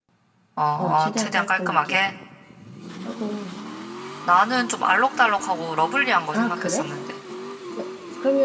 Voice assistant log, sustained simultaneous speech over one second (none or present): present